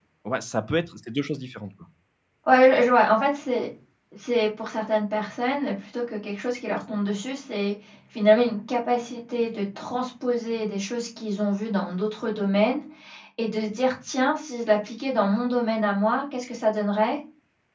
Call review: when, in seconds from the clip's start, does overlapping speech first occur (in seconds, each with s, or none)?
none